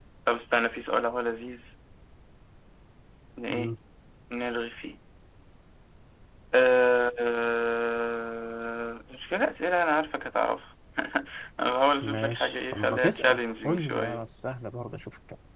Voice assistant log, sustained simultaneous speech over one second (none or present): present